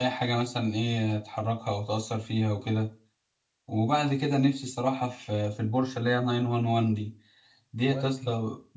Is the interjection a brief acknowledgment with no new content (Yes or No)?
Yes